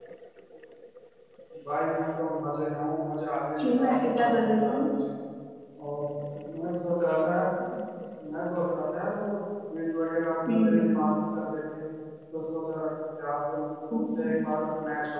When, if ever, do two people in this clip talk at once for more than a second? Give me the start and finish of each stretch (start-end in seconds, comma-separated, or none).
3.6-4.8